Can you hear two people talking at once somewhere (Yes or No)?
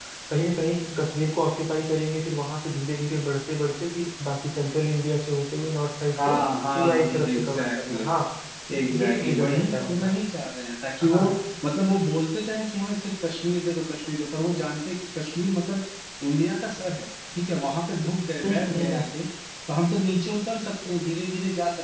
Yes